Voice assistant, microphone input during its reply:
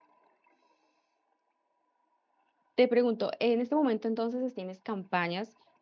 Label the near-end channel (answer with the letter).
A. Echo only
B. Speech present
B